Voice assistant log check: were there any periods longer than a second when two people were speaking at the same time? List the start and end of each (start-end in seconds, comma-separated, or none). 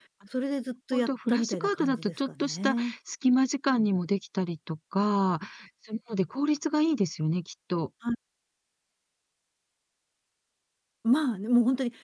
0.9-2.9